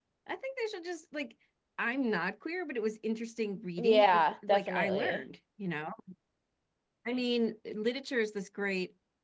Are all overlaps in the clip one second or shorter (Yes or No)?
No